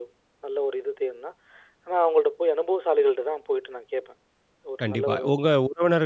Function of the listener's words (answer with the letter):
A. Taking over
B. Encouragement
A